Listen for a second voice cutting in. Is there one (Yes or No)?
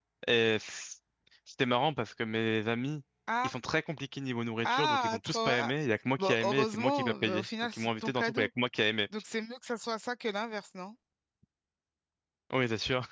Yes